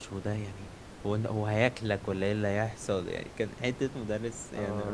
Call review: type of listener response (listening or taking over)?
taking over